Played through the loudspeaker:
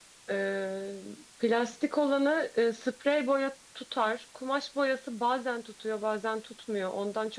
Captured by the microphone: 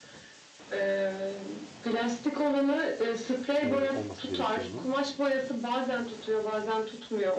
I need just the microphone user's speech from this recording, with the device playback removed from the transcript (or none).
e, olması gerekiyor onun?